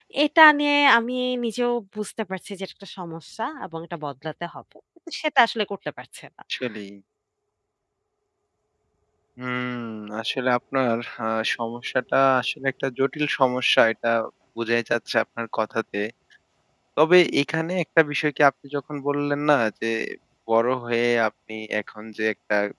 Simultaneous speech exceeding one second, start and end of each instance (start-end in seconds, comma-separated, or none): none